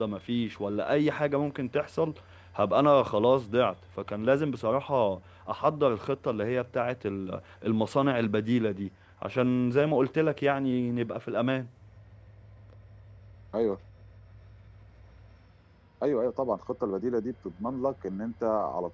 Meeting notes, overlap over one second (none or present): none